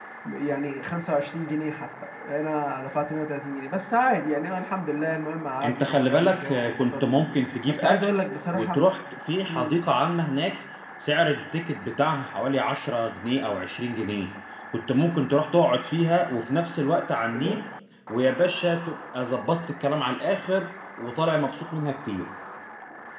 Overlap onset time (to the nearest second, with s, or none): 6 s